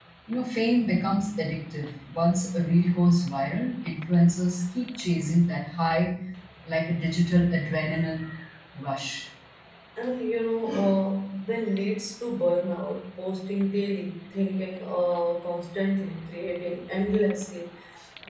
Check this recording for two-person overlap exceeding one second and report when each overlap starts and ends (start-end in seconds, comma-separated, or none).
none